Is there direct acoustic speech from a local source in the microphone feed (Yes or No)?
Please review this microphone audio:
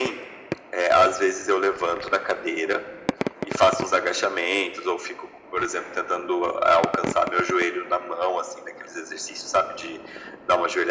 No